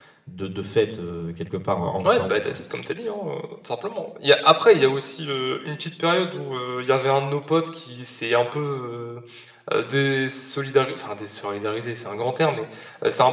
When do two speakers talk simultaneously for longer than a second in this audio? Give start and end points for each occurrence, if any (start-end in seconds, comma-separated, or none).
none